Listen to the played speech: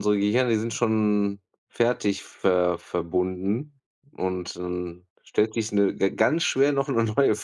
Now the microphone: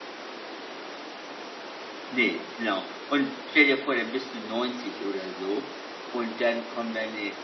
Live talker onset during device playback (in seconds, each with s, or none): 2.1 s